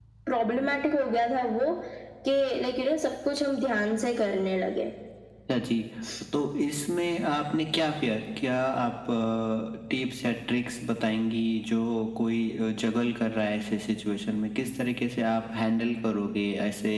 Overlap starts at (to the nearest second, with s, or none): none